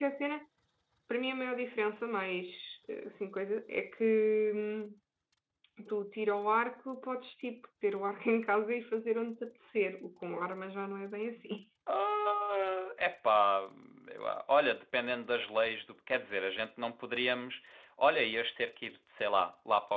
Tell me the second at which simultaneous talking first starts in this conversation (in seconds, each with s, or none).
none